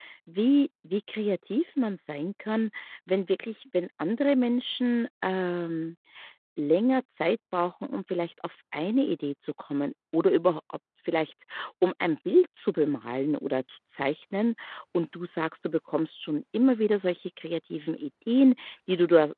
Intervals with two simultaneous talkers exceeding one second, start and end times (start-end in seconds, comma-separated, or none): none